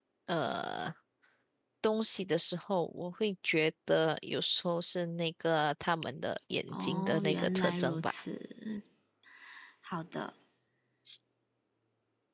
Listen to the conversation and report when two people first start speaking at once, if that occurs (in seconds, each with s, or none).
6.7 s